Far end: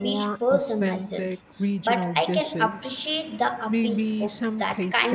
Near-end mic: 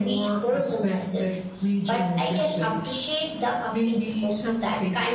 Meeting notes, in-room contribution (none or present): none